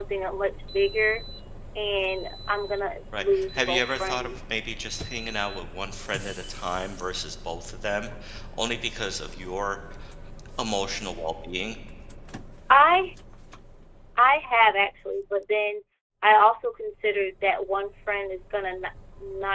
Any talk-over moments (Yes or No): Yes